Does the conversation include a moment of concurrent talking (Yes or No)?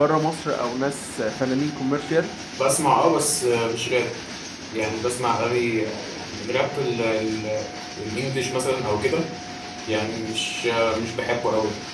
No